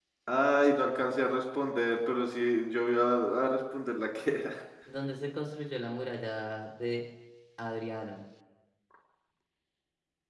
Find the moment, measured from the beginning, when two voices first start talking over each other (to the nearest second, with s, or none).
none